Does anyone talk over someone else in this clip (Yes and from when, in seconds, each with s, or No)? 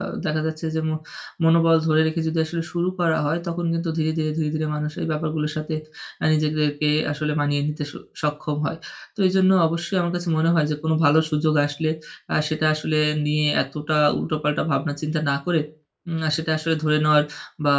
No